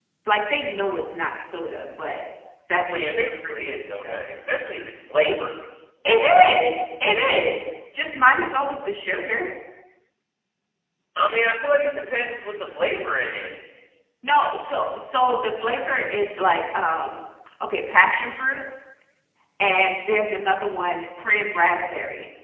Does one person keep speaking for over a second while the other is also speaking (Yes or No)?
Yes